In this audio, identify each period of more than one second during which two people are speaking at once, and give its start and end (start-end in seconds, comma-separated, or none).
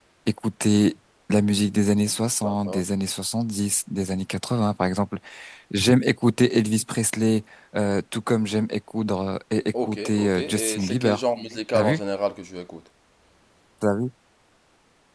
9.8-11.2